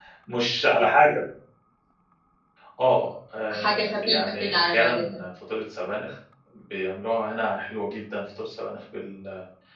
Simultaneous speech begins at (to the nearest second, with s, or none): 4 s